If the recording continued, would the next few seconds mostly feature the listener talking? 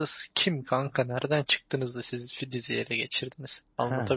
Yes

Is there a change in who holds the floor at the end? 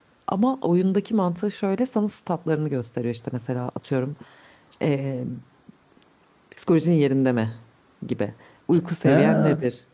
Yes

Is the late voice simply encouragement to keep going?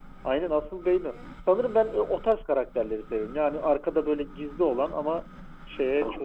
No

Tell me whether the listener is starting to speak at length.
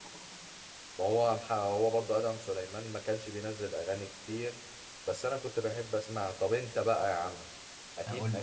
No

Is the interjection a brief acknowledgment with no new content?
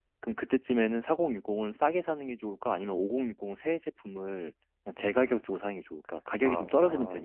No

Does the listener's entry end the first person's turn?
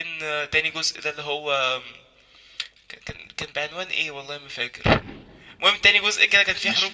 No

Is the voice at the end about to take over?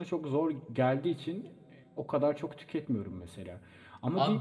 Yes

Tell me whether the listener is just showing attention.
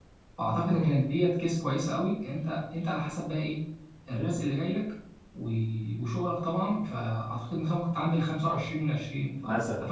No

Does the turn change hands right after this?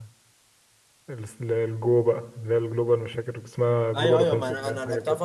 Yes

